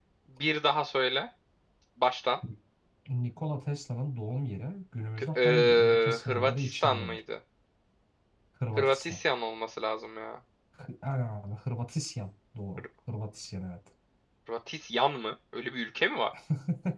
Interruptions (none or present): present